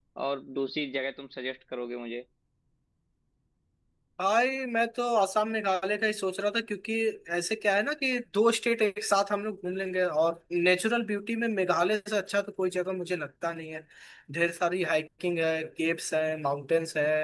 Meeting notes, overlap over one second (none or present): none